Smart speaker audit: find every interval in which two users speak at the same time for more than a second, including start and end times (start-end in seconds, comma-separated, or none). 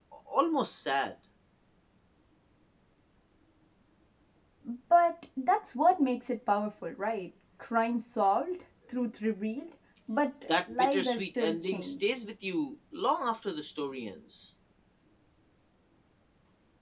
10.5-12.1